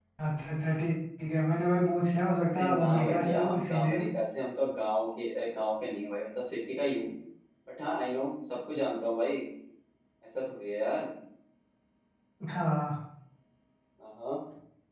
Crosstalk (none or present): present